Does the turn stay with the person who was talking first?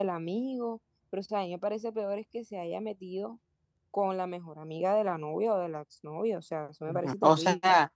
No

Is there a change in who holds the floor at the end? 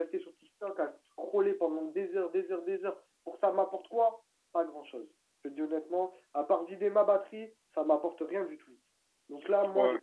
No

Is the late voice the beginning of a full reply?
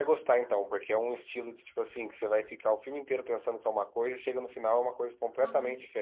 No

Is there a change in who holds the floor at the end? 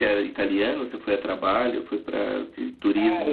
Yes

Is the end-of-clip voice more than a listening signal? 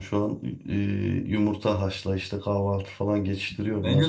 Yes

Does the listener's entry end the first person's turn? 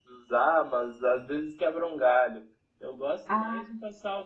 No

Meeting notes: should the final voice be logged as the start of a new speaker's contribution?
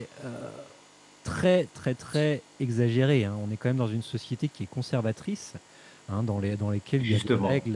No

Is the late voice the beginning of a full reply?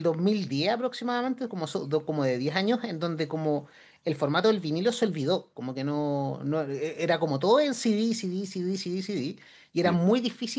No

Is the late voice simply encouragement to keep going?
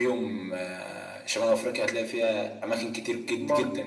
Yes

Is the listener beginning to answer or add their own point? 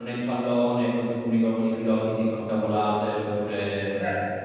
Yes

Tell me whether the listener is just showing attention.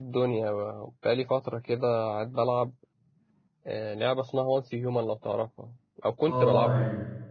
No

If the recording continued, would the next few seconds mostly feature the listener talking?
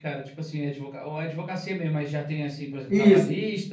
Yes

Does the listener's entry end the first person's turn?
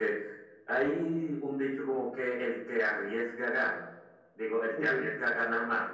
No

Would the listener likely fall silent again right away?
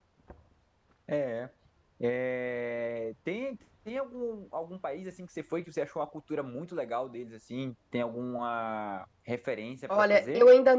No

